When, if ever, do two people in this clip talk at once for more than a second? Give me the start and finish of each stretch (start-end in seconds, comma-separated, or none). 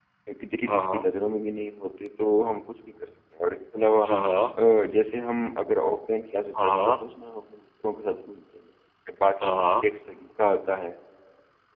none